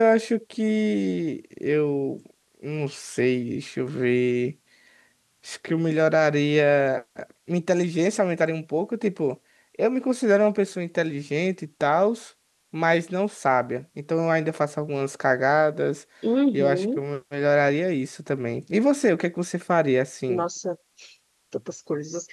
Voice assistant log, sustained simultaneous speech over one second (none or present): none